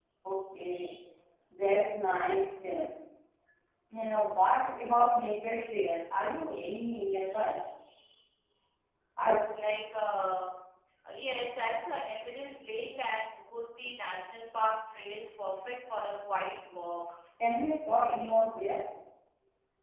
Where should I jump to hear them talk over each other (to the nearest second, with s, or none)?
none